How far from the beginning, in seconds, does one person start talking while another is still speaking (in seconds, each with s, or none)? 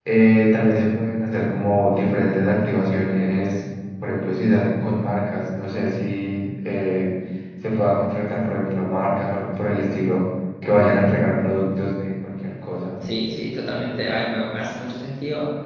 none